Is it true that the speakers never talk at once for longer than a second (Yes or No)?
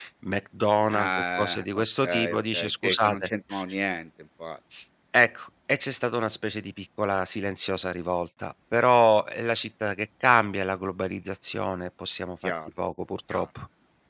No